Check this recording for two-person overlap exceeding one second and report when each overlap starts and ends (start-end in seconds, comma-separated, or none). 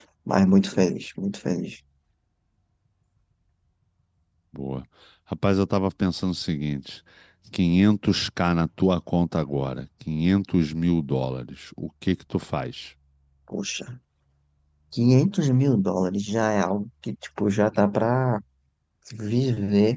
none